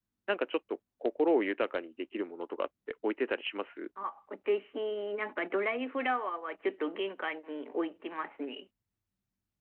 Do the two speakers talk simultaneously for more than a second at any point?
No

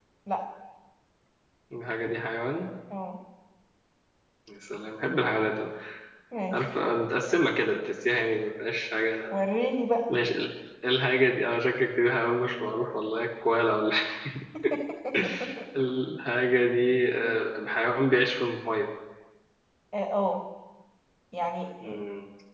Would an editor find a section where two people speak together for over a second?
No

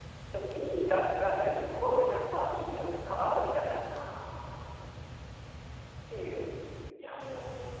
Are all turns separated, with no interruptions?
Yes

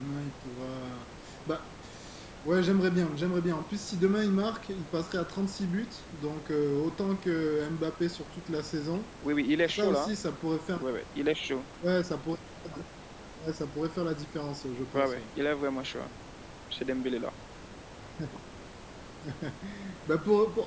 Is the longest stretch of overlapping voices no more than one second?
Yes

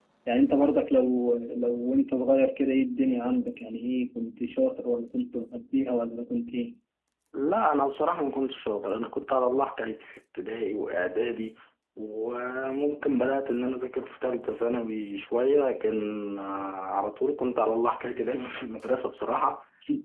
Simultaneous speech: No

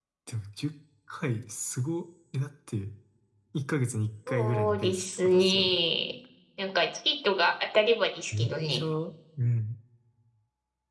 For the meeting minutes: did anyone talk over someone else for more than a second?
Yes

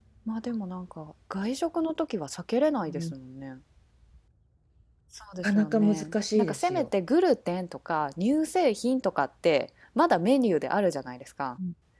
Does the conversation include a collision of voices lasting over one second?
Yes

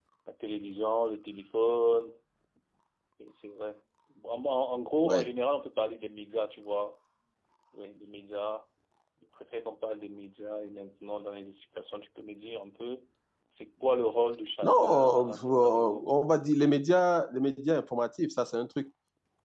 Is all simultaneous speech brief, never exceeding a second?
No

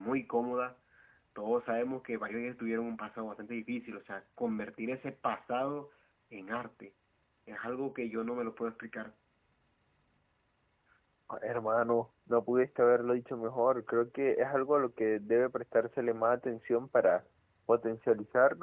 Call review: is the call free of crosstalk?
Yes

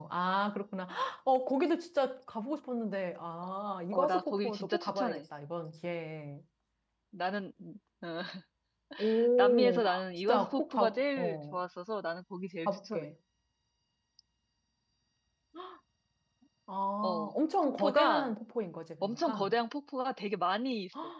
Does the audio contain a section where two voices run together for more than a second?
Yes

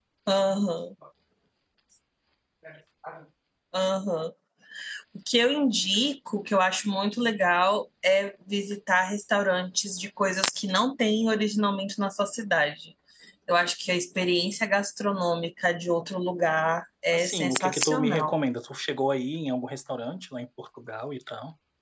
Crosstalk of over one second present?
Yes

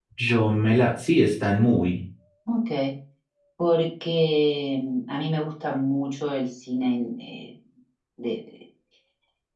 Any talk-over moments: No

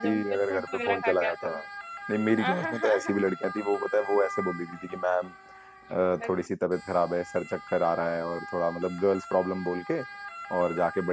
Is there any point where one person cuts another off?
Yes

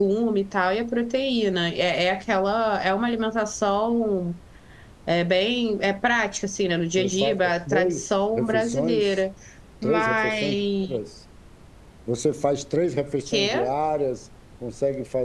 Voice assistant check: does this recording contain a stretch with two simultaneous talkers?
Yes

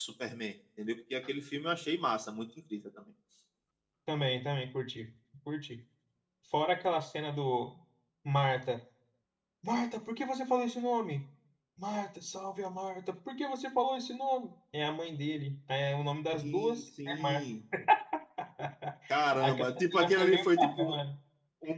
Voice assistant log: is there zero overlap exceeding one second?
No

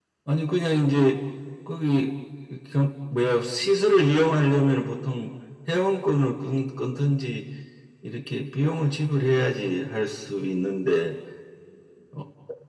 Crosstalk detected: No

